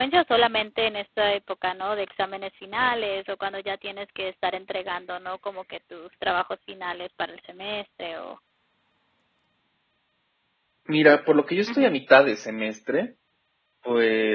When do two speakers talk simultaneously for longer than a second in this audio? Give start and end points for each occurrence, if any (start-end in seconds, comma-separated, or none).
none